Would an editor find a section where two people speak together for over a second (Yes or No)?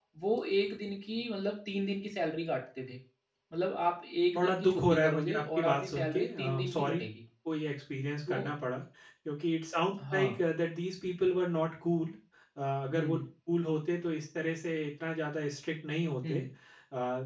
Yes